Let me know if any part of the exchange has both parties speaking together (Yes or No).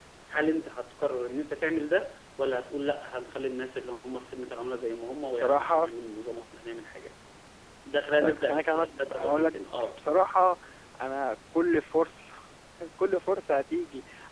Yes